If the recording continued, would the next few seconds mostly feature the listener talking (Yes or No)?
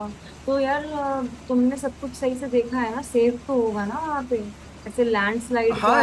Yes